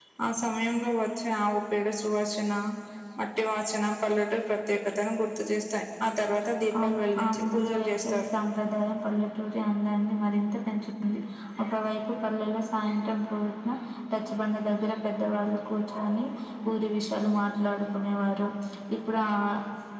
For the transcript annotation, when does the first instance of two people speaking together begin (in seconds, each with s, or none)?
6.7 s